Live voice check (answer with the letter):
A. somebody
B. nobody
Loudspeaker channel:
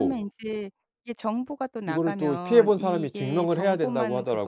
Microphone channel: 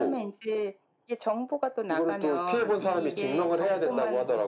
A